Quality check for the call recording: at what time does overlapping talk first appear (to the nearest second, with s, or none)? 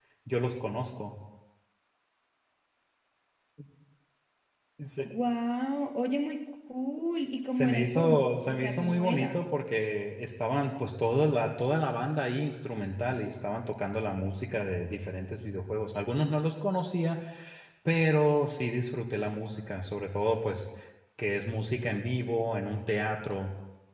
8 s